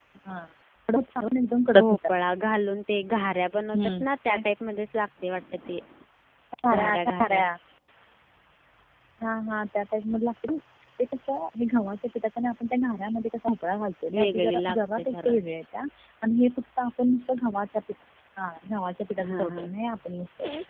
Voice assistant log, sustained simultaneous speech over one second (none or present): present